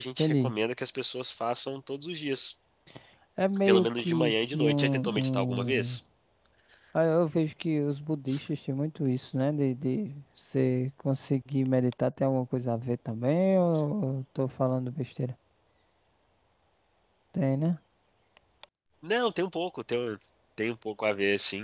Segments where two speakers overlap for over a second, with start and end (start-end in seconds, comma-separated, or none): 3.7-6.0